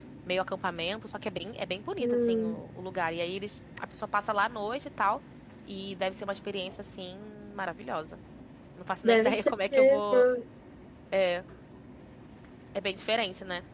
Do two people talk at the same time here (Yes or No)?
Yes